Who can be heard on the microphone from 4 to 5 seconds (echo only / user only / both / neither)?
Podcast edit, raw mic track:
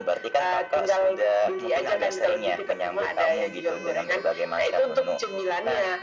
echo only